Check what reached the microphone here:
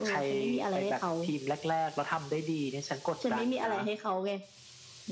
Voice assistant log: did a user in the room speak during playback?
No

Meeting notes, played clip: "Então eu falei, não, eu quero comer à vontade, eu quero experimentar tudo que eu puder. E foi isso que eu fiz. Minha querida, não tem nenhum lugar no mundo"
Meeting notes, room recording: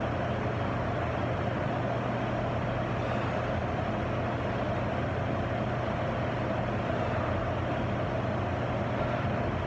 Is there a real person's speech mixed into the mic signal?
No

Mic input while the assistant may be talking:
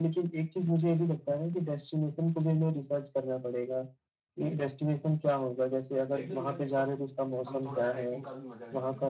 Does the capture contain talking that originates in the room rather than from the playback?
Yes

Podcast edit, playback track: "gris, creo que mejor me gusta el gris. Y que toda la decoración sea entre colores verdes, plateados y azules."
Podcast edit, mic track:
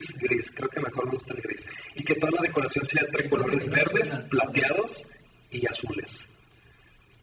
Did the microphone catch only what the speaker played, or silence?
No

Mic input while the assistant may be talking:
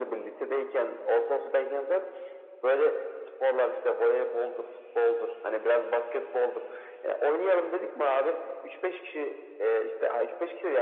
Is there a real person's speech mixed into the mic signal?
No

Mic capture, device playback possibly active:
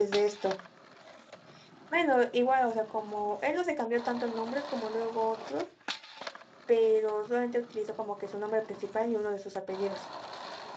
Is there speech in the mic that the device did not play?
Yes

